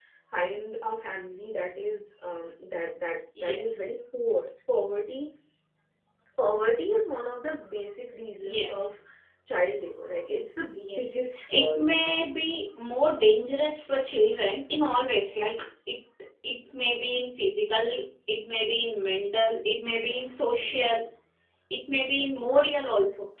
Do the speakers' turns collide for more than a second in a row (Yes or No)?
Yes